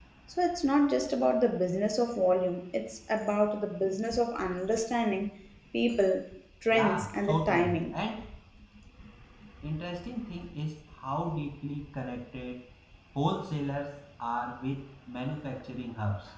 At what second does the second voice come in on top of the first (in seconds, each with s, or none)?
6.7 s